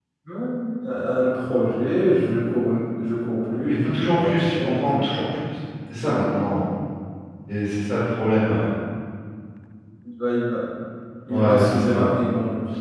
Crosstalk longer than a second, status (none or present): present